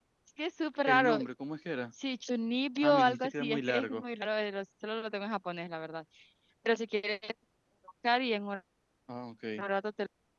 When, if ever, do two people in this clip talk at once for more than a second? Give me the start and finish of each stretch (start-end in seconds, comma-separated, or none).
2.8-4.0